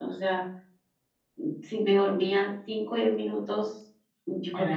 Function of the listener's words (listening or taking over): listening